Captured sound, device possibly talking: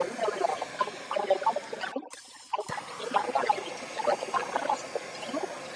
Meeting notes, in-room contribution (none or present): none